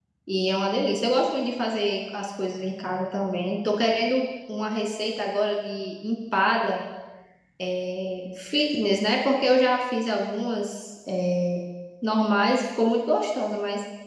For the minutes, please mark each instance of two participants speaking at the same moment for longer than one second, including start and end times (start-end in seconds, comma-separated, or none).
none